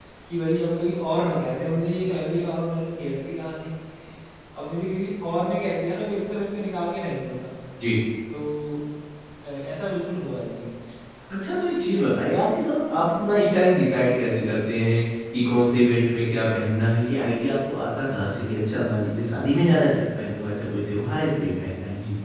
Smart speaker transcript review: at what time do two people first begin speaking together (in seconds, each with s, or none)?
none